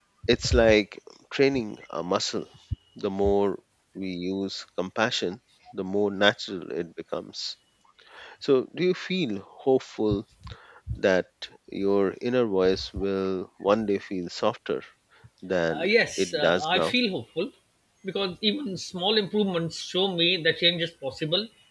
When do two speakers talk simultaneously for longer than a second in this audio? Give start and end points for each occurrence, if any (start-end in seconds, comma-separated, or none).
15.7-16.9